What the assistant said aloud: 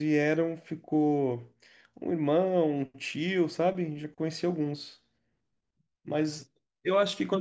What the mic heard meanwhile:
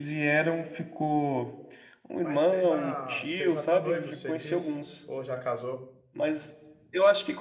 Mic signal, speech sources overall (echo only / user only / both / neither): both